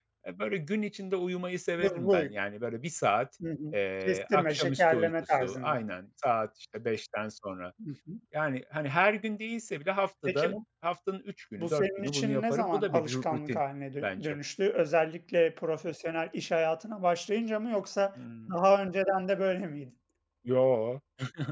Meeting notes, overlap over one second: present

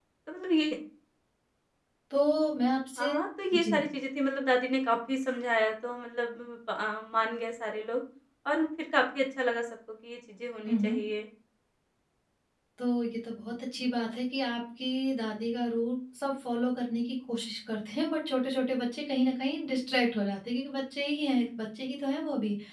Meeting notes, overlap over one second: none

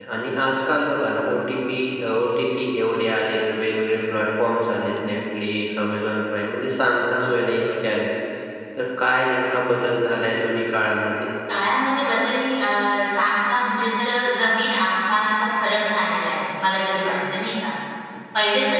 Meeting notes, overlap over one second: none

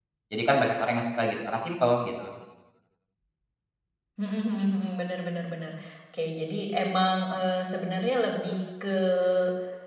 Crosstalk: none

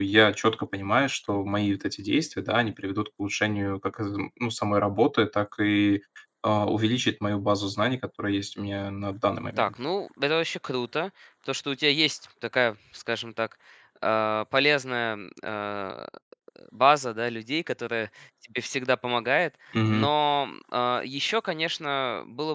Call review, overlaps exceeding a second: none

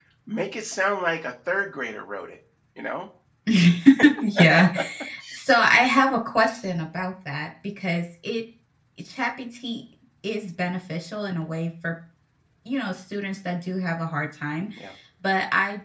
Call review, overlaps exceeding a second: none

